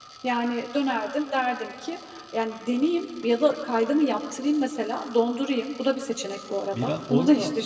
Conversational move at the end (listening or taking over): taking over